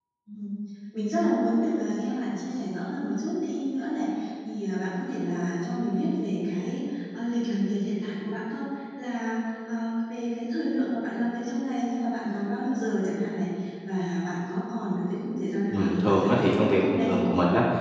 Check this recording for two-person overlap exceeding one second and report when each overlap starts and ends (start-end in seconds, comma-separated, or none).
15.7-17.1